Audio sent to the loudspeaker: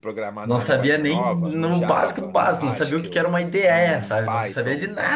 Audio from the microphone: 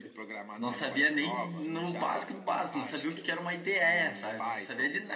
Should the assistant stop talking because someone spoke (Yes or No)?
No